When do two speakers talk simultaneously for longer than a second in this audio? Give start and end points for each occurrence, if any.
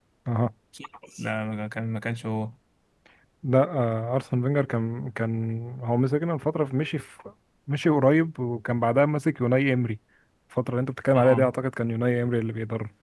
none

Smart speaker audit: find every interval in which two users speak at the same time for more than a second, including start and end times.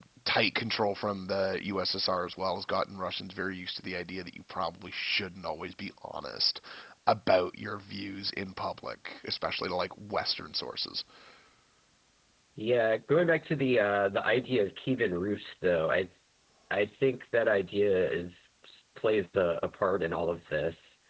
none

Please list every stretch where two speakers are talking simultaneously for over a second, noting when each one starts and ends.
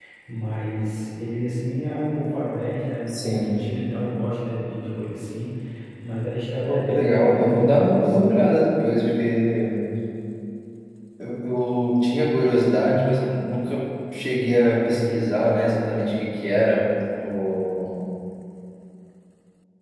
6.7-8.4

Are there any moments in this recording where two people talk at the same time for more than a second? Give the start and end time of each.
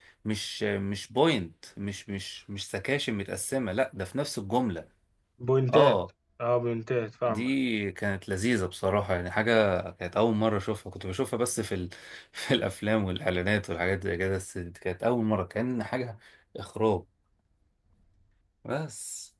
none

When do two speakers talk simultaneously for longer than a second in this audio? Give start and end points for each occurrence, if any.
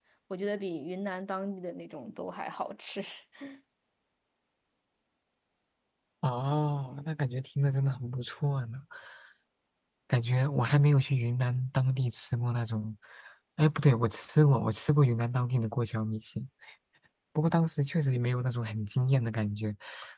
none

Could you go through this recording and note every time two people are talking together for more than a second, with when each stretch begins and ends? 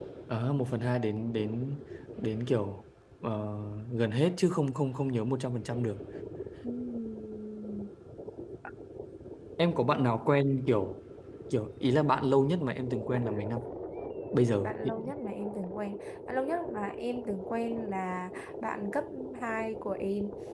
none

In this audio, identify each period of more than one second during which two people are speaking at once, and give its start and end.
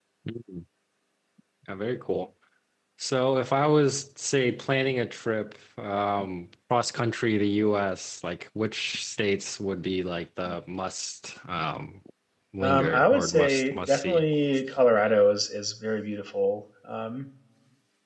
12.6-14.2

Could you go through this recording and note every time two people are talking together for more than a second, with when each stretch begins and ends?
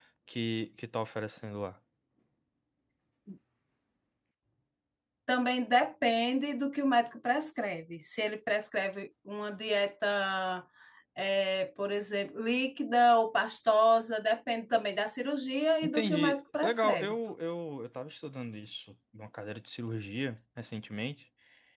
15.8-17.1

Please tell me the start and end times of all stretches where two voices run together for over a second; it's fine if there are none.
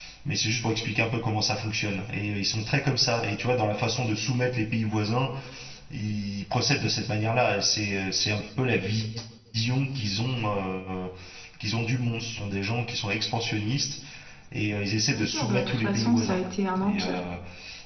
15.1-16.4

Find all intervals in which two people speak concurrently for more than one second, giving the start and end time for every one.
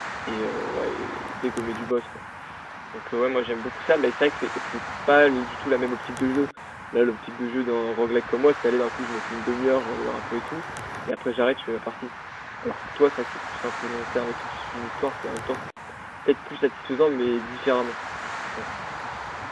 none

